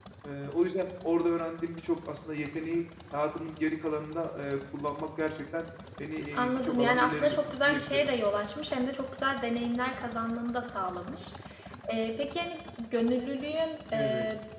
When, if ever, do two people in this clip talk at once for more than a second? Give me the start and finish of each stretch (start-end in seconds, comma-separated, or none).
6.3-8.2